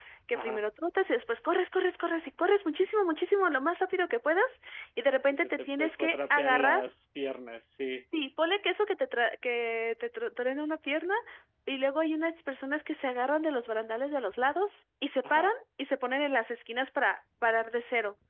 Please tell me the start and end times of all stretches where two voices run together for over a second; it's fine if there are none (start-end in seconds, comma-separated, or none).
5.3-6.8